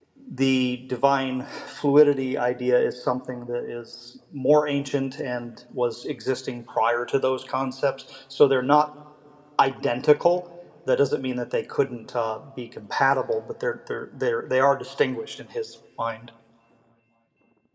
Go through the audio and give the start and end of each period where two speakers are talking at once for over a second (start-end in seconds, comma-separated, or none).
none